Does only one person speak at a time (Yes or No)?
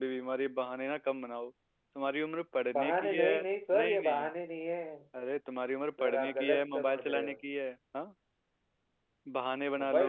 No